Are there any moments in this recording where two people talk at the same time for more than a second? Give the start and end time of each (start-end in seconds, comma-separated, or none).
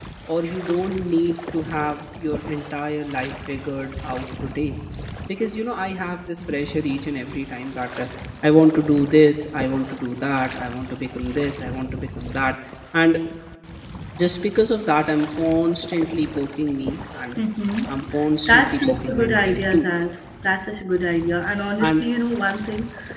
18.5-19.9